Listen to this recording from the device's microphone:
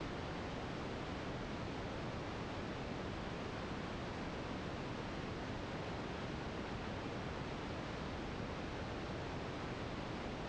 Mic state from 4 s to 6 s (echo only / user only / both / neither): neither